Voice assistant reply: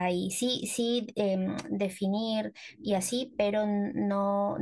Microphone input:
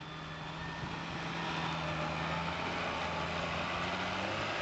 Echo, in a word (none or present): none